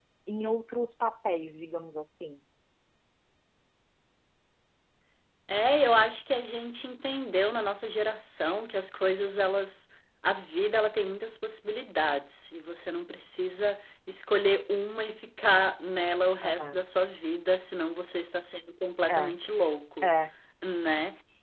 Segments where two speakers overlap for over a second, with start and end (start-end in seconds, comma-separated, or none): none